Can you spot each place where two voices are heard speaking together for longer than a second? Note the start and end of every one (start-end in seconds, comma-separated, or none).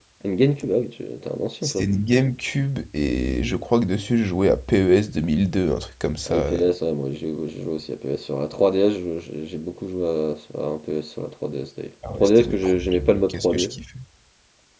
12.2-13.7